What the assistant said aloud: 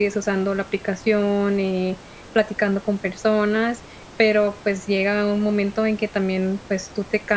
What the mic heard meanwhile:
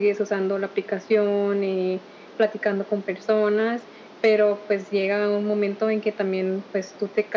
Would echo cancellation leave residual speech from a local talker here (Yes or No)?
No